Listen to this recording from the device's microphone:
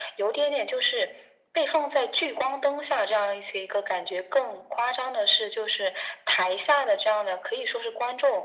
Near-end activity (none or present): none